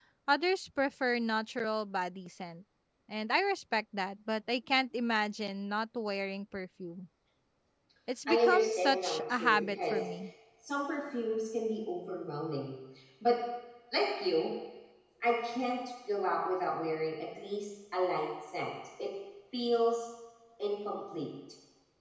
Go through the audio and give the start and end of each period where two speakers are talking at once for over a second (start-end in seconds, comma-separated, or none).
8.3-10.1